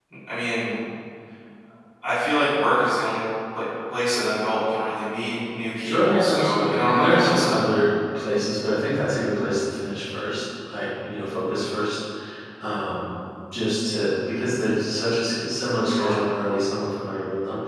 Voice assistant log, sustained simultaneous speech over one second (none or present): present